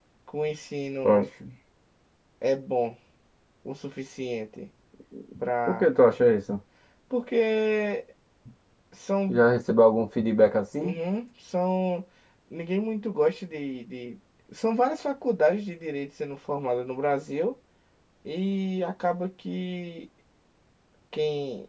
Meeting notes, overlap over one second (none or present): none